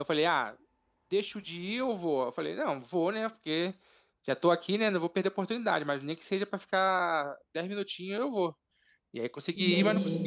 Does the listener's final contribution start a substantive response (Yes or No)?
No